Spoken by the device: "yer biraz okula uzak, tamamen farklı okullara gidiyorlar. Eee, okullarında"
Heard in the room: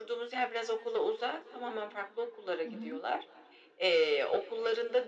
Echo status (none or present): present